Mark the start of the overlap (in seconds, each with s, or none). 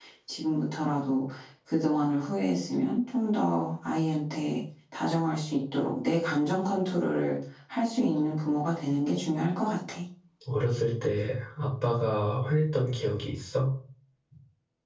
none